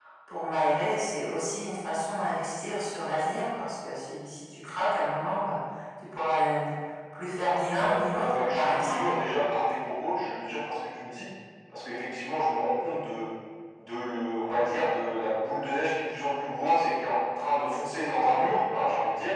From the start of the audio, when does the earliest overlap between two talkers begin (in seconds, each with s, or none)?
7.8 s